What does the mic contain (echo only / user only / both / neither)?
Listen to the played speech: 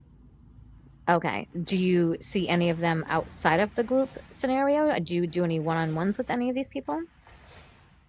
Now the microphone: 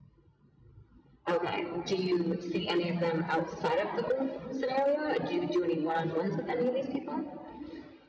echo only